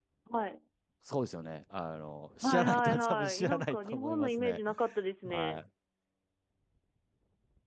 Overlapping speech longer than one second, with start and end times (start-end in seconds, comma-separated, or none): 2.4-4.6